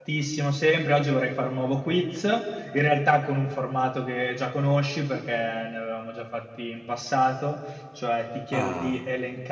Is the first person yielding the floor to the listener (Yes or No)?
No